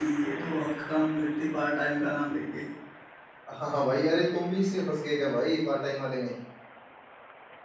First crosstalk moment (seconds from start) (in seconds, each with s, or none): none